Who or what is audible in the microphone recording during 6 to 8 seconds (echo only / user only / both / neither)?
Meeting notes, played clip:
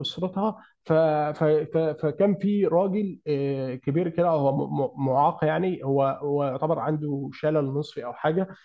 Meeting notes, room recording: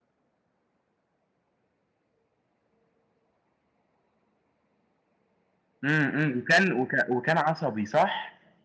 user only